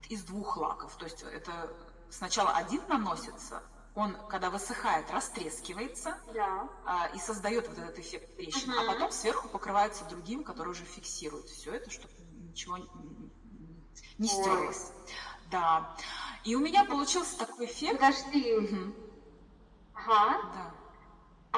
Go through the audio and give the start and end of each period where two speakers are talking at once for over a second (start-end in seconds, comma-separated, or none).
none